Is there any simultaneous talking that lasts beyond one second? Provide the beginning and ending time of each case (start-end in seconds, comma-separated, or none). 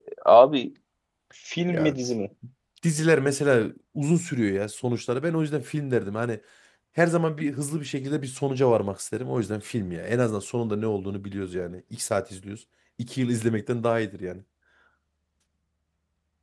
none